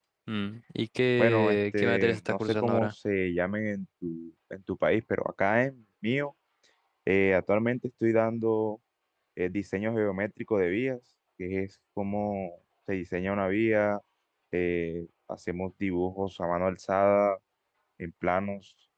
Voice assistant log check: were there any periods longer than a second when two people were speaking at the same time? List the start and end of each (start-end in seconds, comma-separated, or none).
1.2-2.9